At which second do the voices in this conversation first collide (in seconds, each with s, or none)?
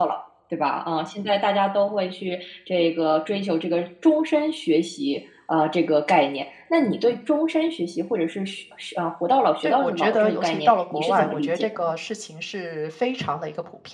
9.6 s